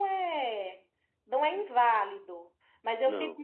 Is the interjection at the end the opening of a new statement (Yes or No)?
No